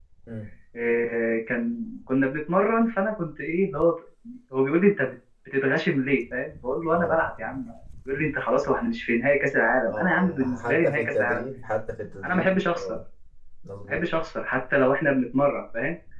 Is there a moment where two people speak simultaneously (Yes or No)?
Yes